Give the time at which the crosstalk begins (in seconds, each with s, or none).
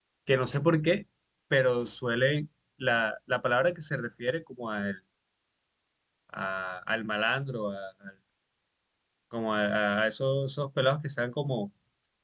none